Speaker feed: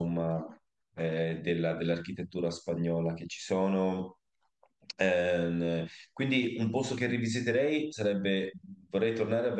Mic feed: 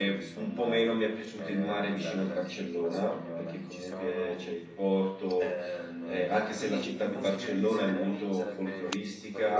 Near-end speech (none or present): present